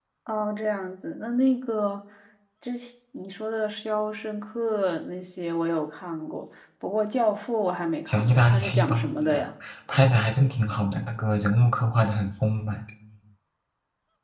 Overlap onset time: 8.1 s

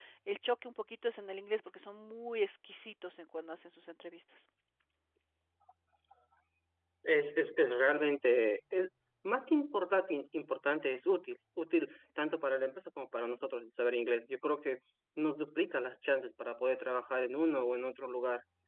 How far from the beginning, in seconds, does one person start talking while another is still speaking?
none

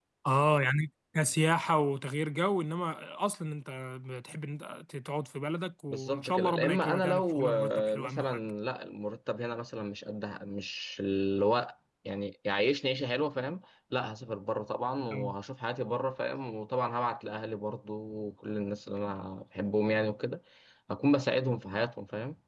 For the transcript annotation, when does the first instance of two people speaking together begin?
5.9 s

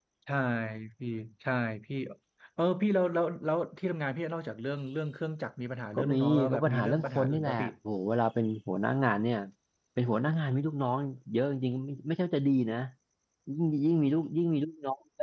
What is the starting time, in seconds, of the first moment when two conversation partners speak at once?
6.0 s

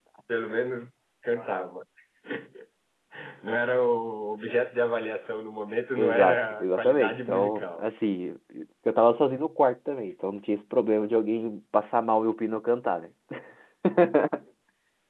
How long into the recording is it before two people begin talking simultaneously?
6.0 s

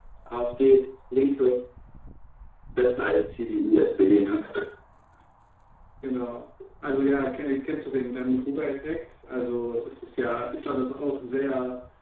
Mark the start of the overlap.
none

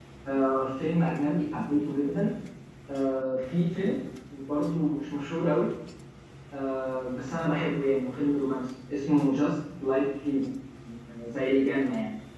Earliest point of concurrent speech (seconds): none

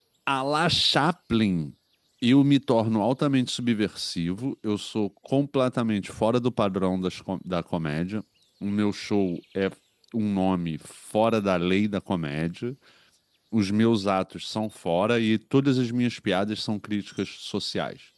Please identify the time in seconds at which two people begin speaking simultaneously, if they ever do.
none

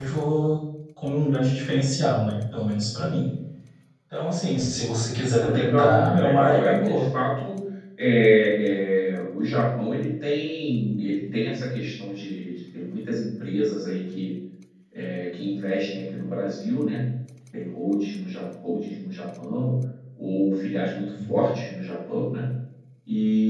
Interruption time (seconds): 5.4 s

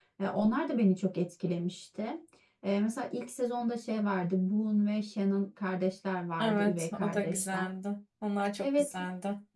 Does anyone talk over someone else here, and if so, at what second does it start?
6.4 s

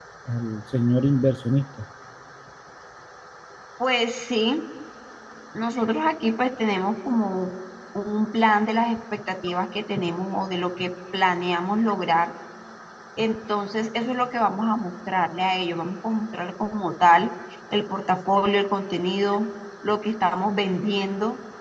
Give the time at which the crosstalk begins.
none

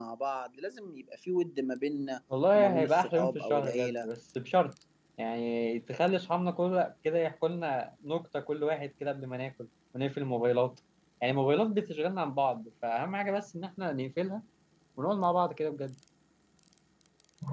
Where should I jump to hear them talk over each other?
2.5 s

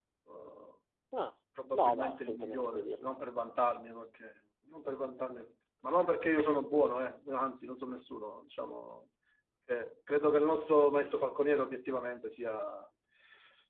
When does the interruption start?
1.7 s

